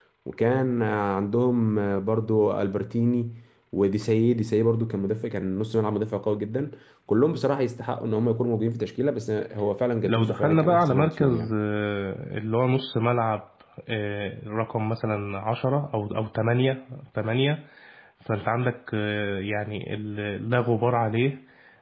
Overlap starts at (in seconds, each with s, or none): 10.0 s